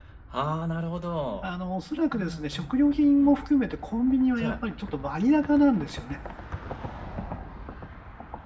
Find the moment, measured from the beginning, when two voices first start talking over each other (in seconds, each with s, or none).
2.1 s